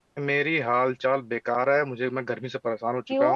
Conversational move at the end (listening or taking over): listening